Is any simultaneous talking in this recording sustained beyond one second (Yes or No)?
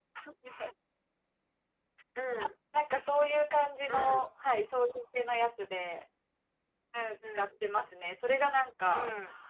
No